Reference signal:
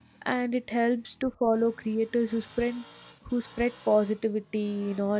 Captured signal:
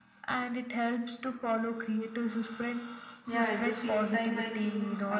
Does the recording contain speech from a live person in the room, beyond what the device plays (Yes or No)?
Yes